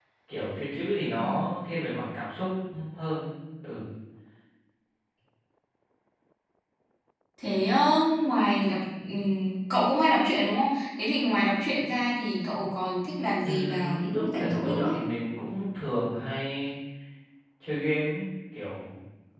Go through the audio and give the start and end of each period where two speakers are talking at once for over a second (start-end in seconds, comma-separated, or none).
13.4-14.9